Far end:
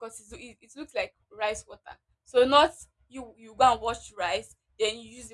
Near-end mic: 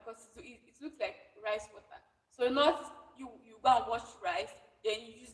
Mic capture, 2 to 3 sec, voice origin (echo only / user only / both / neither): echo only